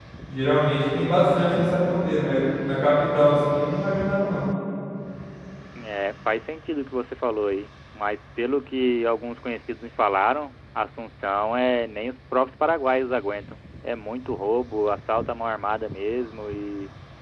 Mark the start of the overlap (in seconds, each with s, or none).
none